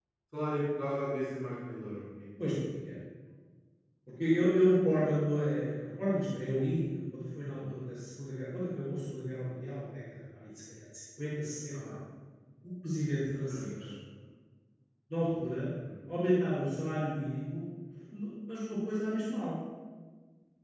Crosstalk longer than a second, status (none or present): none